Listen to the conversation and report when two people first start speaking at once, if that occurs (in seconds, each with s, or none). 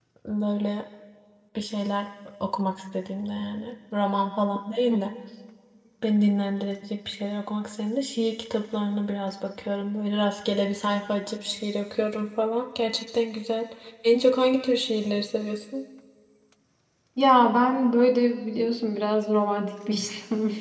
none